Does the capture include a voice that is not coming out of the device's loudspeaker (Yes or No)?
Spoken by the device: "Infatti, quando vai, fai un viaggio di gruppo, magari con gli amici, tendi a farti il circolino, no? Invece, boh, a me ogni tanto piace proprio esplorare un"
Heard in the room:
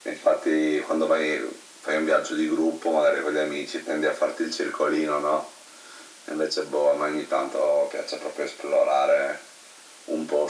No